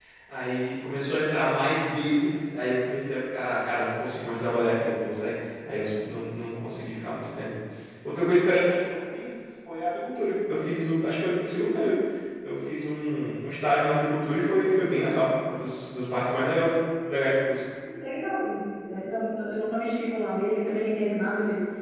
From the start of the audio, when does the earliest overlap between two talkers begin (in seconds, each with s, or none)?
none